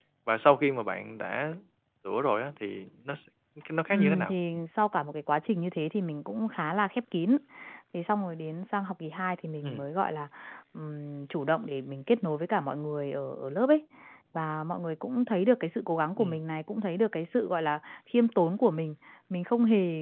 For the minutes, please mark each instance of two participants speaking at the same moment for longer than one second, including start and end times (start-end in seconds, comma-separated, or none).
none